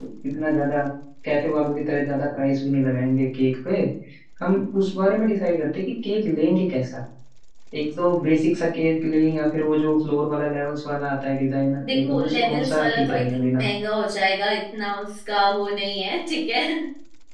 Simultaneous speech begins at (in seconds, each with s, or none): 11.8 s